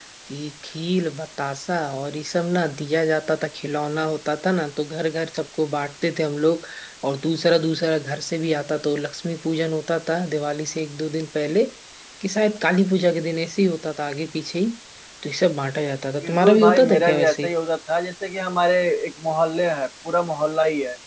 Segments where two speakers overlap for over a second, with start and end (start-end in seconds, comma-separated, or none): 16.2-17.5